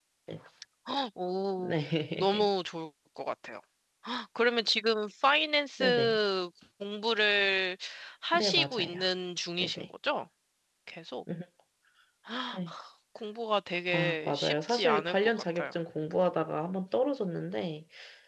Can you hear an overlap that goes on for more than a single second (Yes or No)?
Yes